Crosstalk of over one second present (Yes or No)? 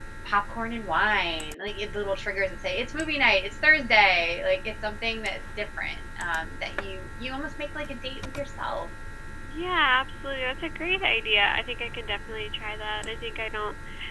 No